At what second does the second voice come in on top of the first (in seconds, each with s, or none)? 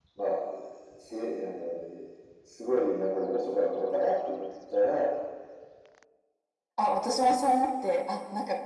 none